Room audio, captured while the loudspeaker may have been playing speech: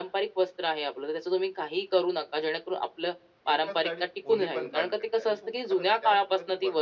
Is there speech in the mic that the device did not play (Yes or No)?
Yes